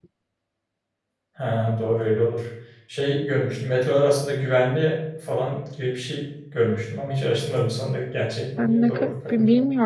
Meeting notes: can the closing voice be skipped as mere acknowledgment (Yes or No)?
No